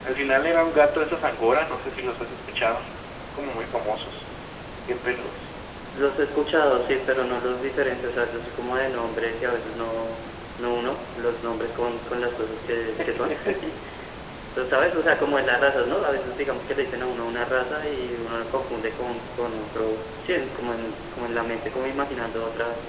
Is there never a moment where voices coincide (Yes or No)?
Yes